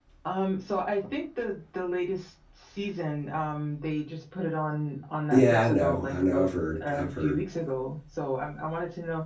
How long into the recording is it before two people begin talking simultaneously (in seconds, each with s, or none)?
5.3 s